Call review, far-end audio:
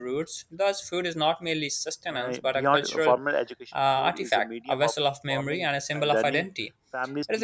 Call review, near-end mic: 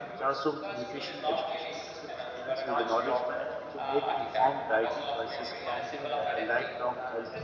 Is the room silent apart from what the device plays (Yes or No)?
No